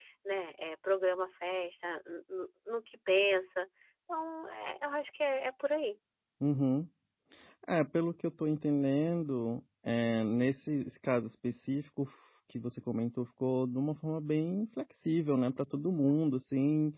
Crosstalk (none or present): none